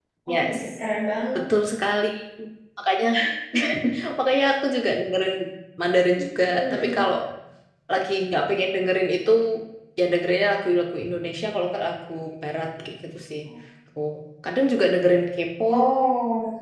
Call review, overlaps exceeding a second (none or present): none